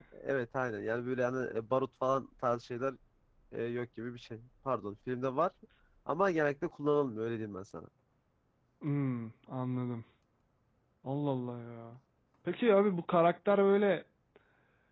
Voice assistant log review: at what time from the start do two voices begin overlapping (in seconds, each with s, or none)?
none